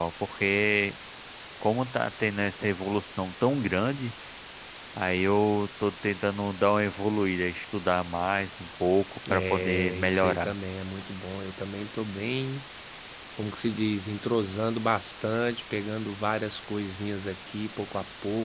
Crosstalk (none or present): present